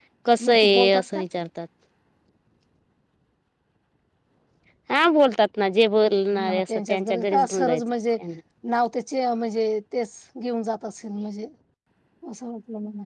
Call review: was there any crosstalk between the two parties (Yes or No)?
Yes